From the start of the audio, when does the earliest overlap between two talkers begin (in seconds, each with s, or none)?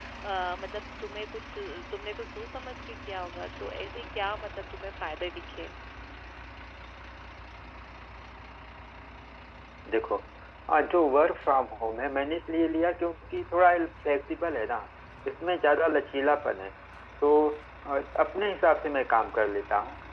none